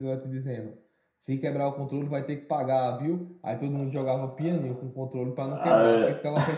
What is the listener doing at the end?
listening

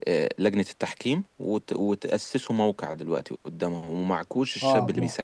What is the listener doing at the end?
taking over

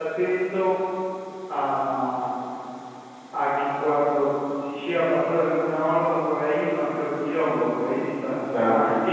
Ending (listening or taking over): taking over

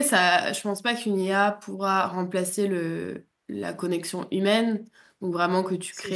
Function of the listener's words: listening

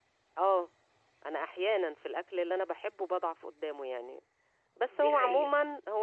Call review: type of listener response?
listening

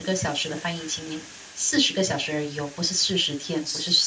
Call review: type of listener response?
taking over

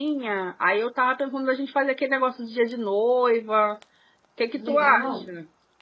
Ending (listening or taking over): taking over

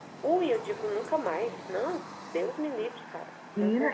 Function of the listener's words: taking over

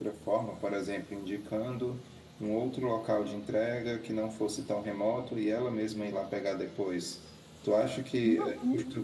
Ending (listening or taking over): listening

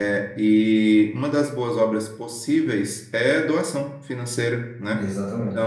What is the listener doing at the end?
listening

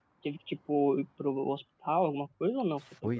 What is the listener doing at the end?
taking over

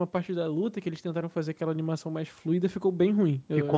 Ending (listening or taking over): taking over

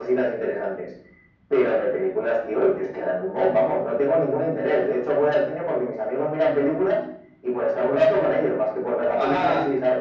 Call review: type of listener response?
taking over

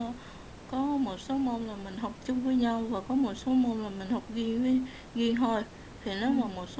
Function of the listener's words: listening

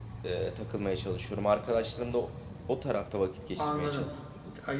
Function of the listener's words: taking over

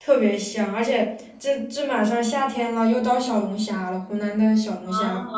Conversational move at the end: listening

